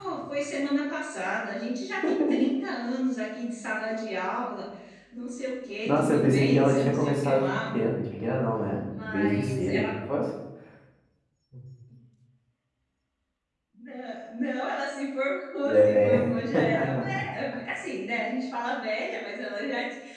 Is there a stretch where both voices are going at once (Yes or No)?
Yes